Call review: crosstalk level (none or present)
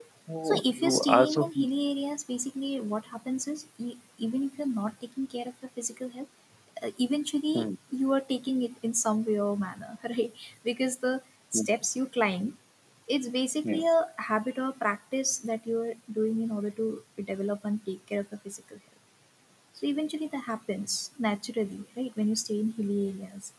present